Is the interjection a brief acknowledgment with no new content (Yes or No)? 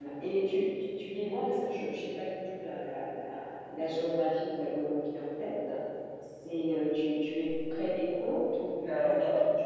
No